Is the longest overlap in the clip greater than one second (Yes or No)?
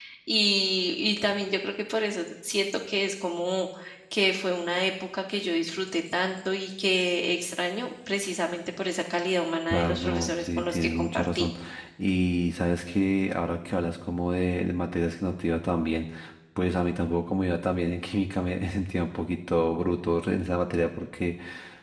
Yes